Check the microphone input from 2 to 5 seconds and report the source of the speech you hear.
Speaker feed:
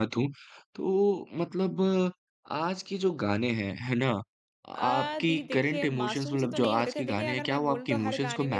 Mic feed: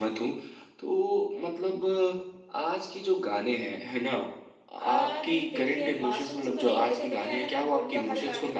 echo only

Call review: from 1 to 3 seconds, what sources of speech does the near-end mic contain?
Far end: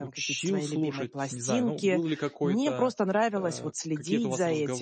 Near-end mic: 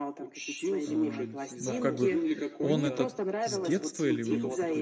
both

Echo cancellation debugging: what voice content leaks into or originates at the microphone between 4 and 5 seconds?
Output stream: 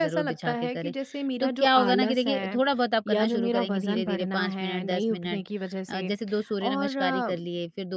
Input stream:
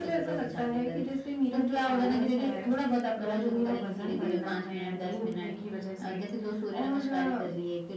both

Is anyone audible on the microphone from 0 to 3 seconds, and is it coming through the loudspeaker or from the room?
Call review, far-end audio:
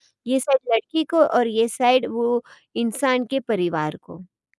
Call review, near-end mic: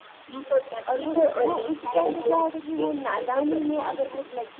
both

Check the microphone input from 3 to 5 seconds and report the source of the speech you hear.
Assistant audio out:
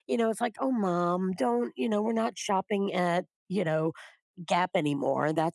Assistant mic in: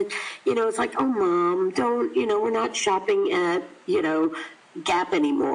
echo only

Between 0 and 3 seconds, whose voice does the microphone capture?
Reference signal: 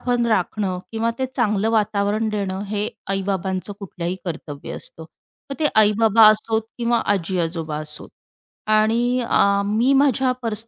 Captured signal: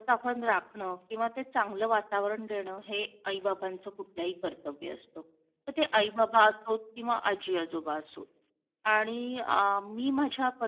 echo only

